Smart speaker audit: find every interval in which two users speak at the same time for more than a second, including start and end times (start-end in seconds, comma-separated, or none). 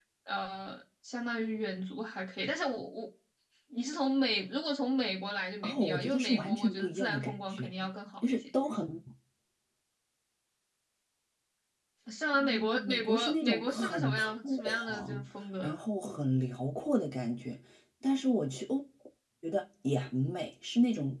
5.6-7.7, 12.3-15.2